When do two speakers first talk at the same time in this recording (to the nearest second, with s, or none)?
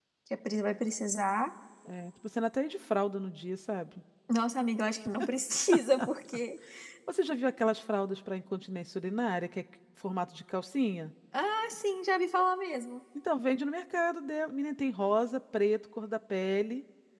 none